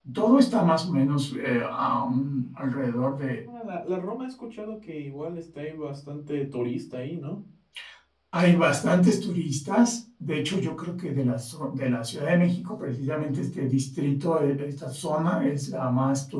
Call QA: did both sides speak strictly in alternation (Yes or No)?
Yes